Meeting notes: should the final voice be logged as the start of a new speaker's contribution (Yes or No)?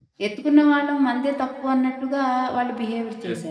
Yes